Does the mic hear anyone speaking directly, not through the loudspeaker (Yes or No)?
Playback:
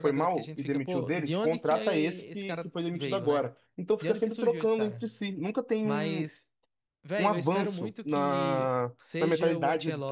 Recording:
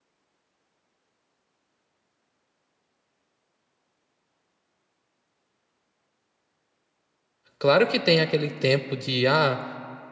Yes